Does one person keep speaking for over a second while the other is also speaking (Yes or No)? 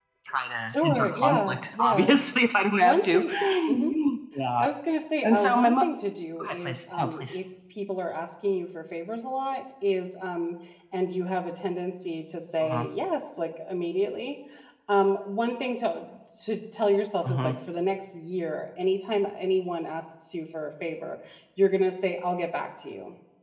Yes